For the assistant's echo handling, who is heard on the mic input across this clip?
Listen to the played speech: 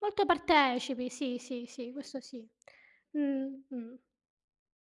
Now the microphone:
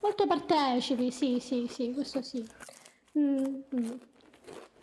echo only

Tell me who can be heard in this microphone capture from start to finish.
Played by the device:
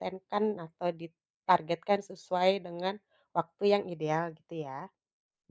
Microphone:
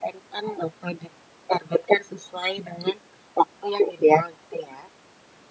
echo only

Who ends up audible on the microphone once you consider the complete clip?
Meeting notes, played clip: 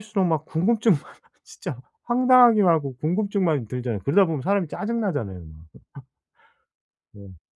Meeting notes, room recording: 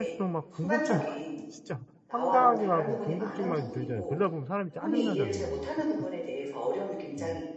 both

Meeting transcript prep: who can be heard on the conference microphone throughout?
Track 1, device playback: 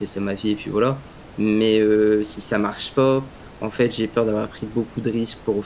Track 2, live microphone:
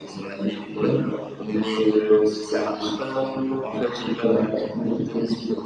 echo only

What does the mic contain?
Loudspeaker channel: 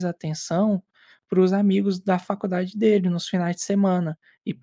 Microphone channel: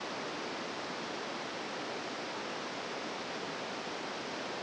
neither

